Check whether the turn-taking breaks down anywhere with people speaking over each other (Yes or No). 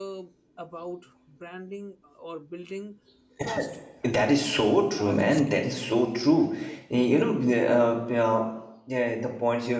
Yes